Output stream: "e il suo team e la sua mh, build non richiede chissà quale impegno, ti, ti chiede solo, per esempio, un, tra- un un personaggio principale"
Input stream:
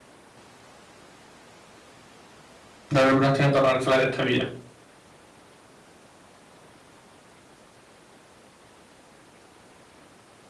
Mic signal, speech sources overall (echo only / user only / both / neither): user only